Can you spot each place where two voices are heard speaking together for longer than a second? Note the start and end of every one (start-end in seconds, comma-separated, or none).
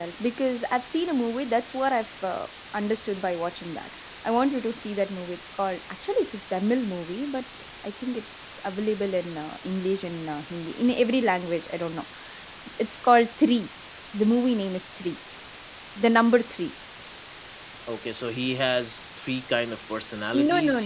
none